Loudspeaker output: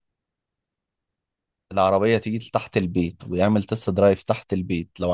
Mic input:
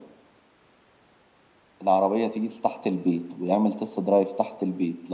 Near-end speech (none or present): none